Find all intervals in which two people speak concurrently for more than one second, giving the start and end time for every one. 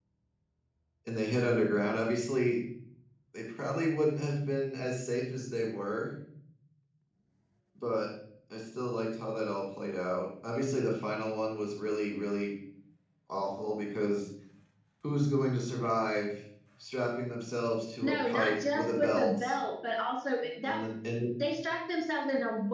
18.0-19.6

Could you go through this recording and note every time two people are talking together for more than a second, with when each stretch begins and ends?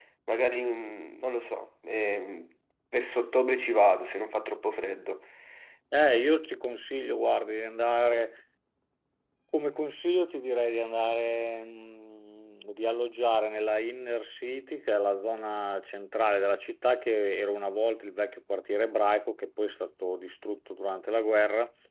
none

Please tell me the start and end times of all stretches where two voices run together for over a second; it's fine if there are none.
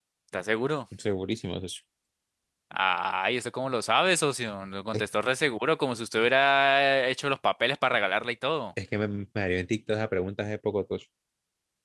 none

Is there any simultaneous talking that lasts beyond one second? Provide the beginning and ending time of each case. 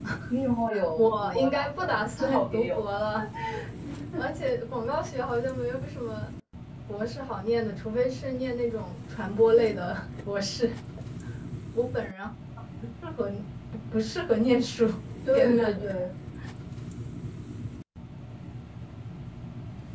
1.0-2.8

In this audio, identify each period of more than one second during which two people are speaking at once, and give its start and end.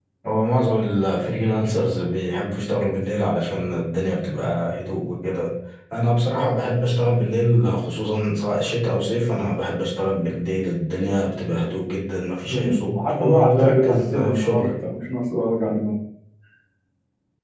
12.5-14.7

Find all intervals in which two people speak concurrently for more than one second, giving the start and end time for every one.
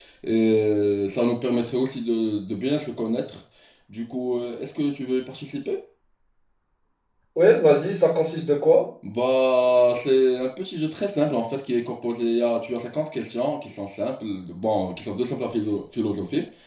none

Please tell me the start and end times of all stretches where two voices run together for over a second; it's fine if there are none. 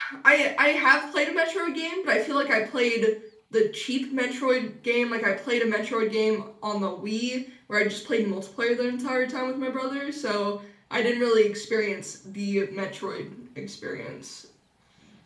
none

